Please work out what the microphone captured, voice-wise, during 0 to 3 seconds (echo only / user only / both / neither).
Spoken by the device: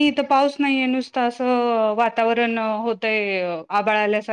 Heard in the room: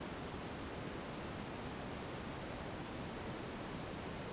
neither